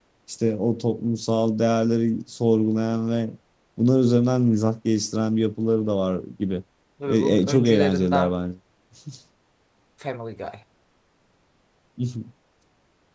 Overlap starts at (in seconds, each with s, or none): 7.1 s